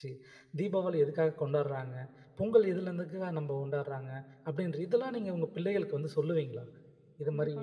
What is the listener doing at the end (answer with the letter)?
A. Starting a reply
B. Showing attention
A